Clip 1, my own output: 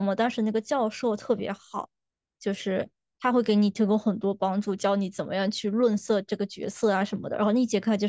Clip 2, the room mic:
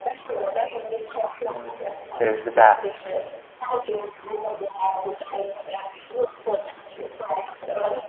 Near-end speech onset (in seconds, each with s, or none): 1.4 s